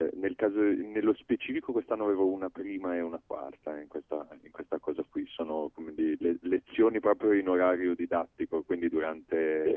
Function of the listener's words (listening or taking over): listening